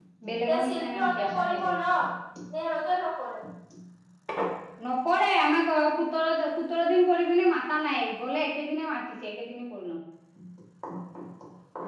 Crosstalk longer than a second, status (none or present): present